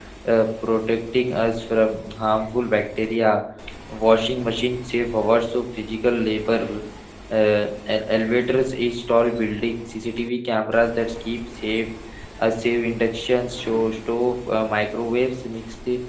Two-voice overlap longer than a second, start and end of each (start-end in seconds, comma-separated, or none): none